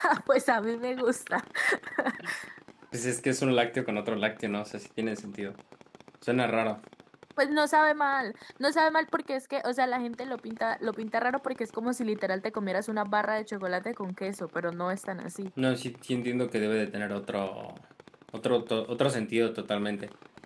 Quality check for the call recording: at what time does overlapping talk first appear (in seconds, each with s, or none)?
none